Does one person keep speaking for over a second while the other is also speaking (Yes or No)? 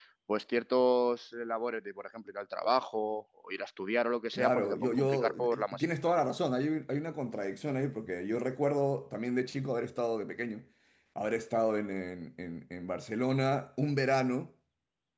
Yes